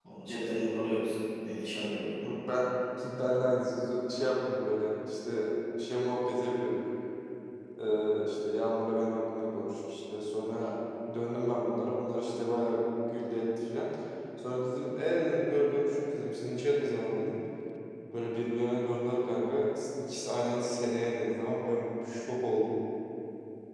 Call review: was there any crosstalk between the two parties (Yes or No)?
No